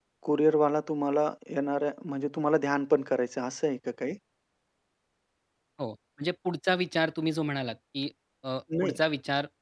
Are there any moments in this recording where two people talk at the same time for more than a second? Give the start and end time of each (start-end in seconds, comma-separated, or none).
none